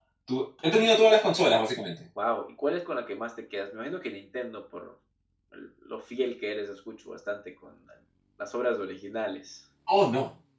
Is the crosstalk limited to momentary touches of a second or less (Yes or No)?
Yes